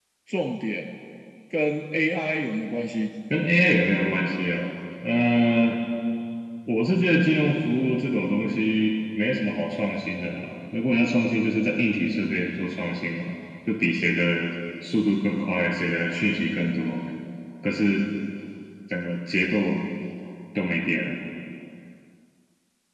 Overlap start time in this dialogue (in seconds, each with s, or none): none